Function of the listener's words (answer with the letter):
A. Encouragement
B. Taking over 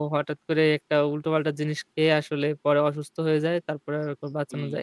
B